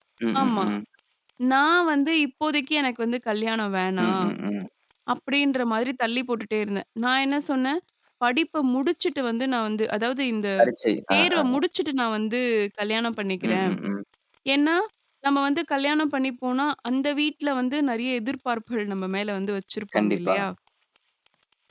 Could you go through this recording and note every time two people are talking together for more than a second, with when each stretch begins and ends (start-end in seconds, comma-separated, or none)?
none